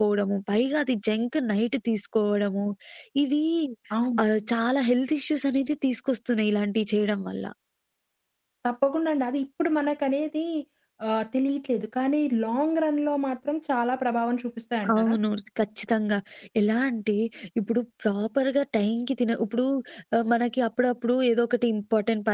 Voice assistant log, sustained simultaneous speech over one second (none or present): none